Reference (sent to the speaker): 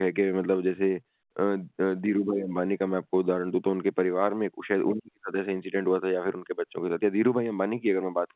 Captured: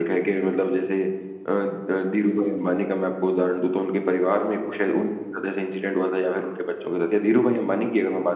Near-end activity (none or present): none